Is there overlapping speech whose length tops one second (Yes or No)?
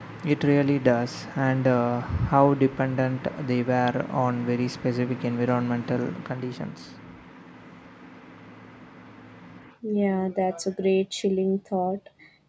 No